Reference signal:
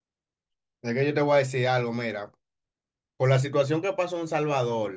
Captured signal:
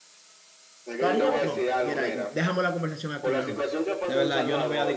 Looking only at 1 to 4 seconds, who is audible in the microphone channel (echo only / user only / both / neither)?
both